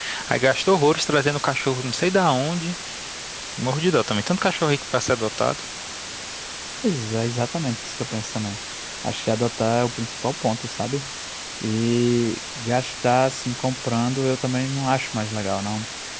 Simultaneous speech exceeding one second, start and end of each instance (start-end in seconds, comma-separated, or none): none